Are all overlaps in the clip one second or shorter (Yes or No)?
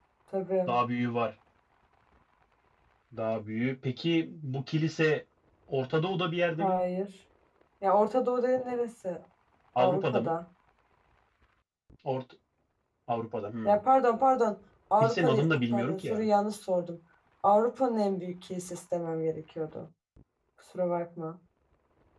No